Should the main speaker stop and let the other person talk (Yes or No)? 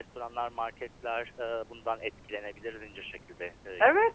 Yes